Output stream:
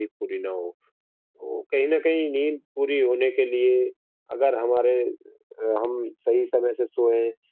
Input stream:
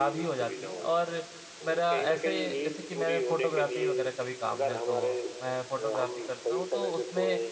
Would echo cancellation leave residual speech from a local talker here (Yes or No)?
Yes